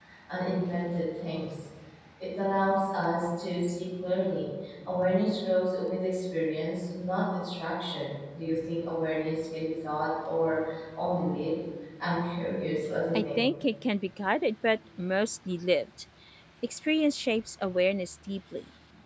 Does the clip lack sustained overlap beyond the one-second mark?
Yes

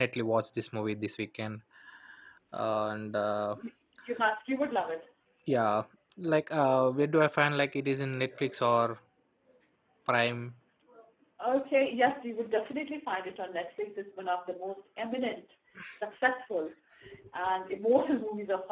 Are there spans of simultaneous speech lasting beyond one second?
No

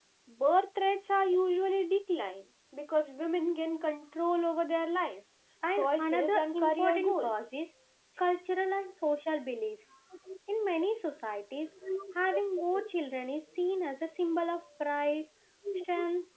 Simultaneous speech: Yes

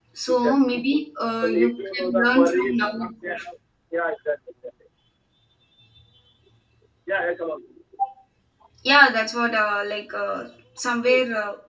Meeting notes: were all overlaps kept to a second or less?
No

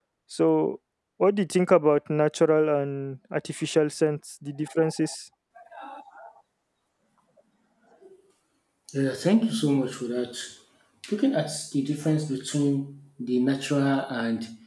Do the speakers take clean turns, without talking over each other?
Yes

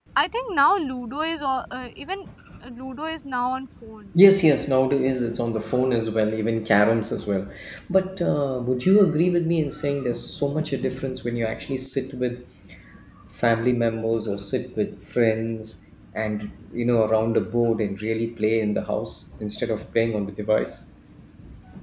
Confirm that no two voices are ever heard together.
Yes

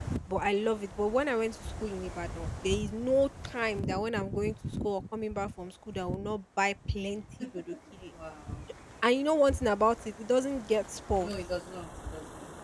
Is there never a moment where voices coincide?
Yes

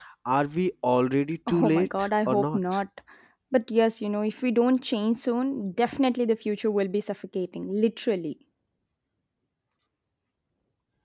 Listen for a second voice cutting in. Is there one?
Yes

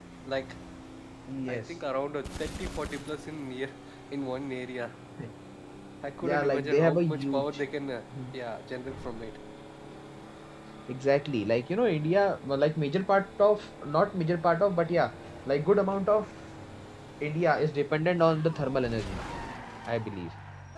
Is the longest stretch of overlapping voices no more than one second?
No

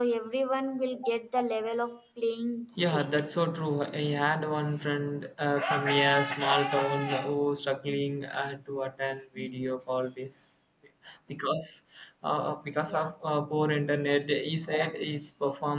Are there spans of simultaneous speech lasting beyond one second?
No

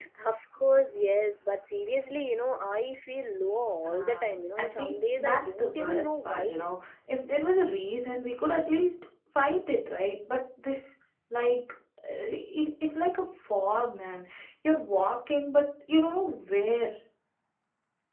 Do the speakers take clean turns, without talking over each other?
No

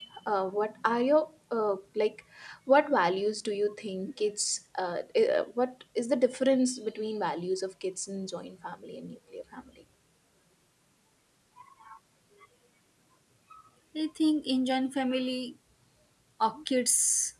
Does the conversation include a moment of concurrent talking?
No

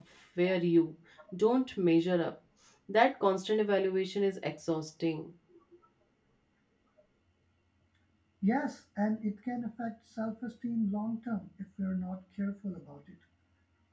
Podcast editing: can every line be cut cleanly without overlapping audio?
Yes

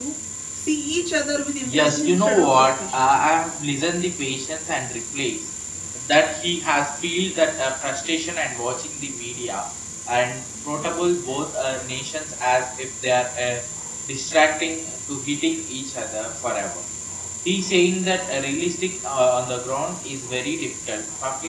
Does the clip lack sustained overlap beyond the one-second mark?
No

